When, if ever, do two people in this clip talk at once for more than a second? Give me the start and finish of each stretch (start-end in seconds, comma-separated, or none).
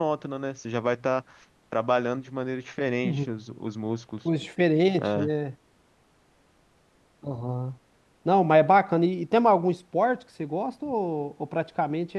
none